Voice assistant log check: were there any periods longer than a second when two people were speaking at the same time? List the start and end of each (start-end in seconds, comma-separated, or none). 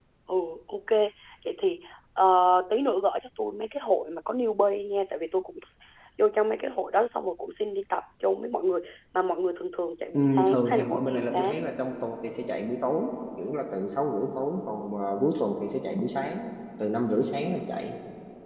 10.1-11.5